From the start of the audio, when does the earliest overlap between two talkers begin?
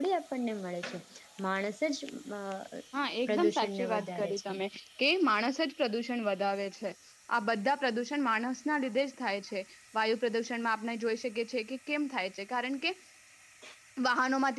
3.3 s

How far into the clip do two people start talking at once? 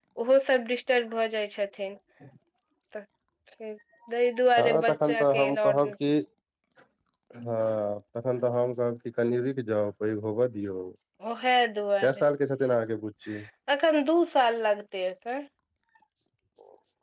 4.6 s

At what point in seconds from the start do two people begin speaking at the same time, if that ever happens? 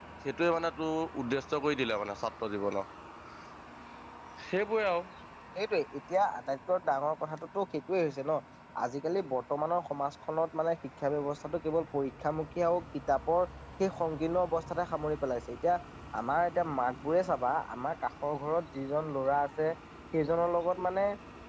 none

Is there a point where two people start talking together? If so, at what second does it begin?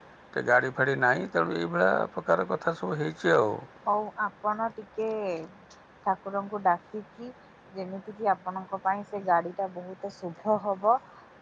none

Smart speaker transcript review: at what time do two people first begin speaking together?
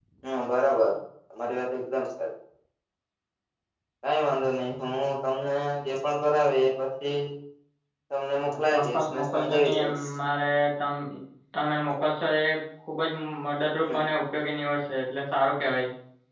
8.5 s

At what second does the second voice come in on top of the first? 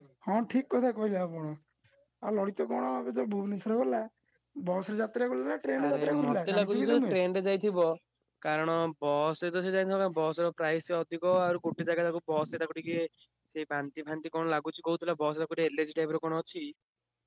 5.8 s

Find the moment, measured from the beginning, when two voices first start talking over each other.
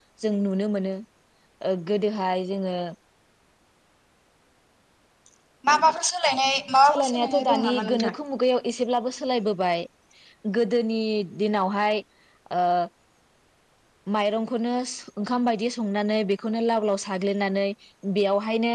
6.8 s

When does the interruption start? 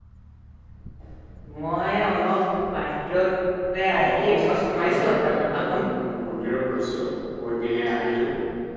3.9 s

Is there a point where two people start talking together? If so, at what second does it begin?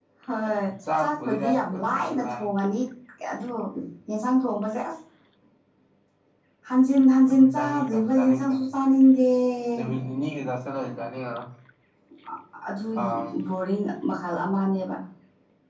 1.0 s

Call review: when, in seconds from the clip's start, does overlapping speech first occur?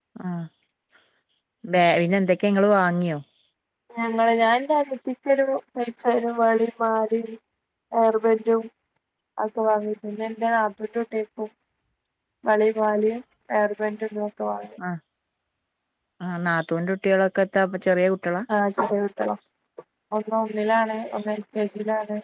none

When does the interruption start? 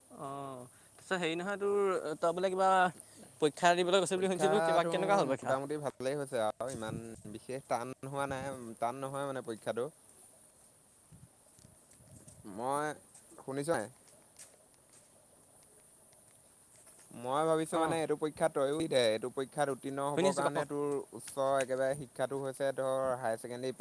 4.2 s

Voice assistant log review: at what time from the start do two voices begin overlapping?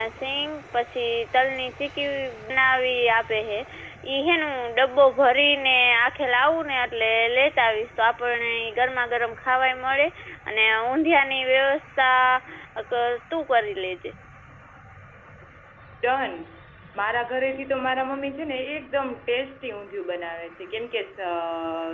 none

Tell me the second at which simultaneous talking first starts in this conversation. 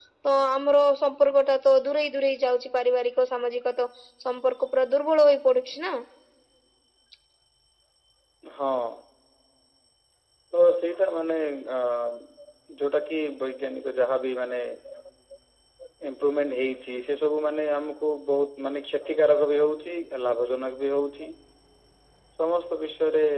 none

